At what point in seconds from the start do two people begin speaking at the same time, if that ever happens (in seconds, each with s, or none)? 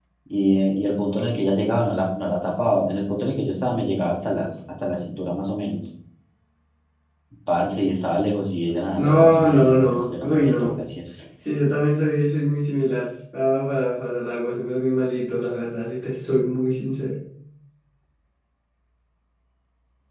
9.0 s